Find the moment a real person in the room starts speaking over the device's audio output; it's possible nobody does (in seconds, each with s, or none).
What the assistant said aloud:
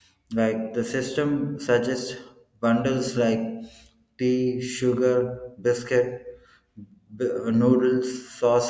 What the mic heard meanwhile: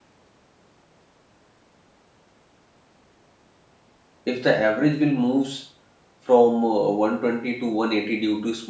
4.2 s